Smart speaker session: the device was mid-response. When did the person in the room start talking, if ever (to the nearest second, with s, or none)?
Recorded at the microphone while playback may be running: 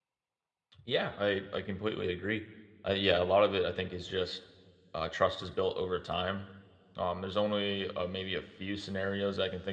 1 s